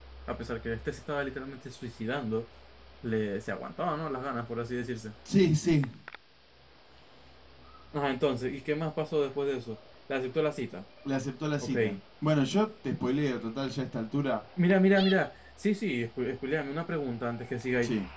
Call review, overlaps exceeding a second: none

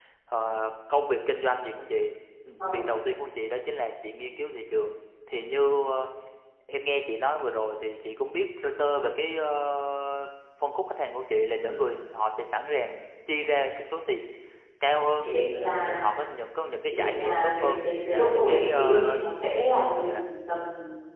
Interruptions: present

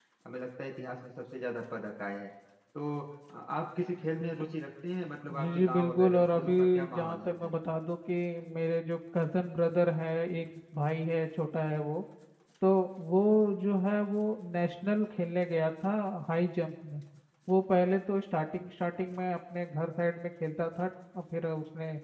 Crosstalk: present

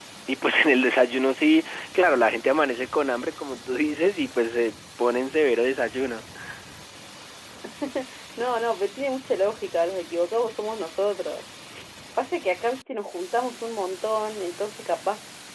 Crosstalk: none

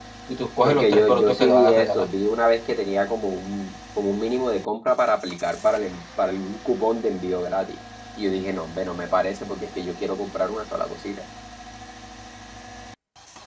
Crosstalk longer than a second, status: present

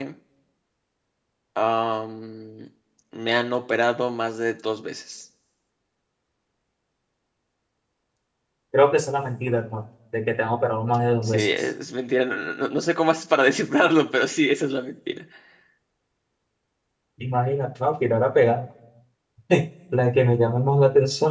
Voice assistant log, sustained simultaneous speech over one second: none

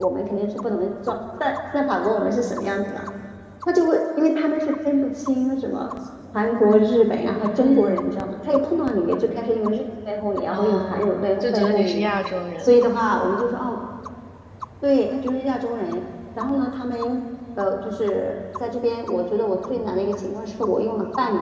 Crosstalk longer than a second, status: present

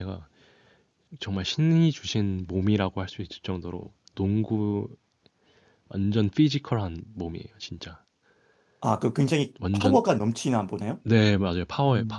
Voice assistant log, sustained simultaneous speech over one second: none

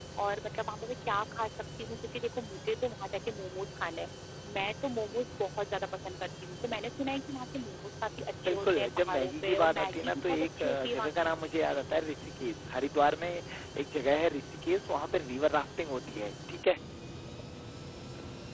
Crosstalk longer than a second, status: present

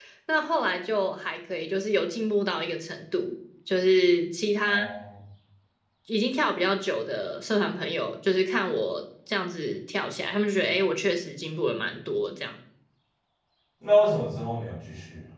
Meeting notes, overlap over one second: none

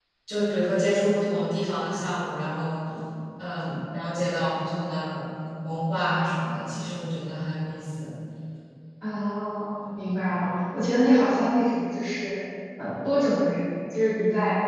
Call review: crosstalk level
none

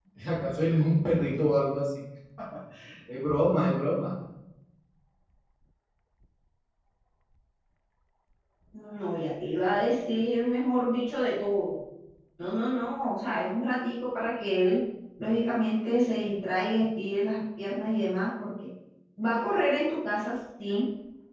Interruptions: none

